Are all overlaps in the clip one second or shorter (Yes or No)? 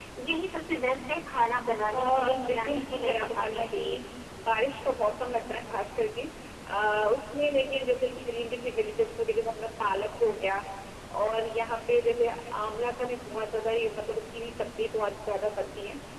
No